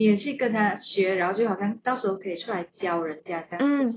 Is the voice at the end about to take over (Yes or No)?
Yes